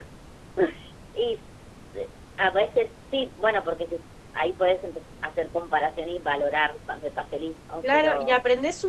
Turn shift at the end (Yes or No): Yes